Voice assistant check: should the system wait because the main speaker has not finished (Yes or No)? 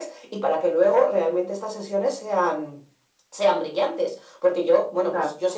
Yes